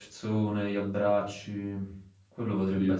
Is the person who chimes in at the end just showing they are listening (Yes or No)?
Yes